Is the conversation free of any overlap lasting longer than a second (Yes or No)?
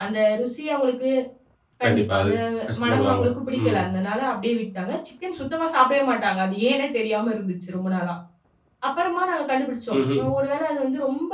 Yes